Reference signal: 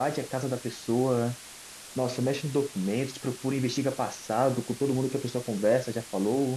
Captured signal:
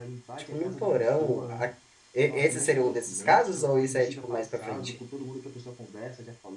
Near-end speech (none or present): present